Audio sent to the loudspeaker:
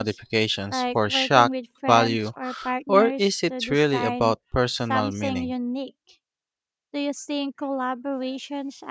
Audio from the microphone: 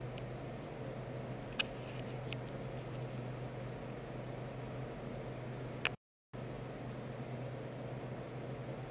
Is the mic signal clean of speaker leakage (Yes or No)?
Yes